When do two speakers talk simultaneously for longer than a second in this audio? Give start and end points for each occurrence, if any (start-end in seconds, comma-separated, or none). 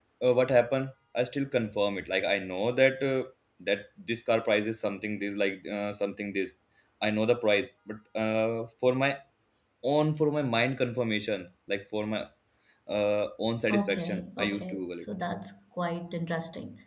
13.7-15.0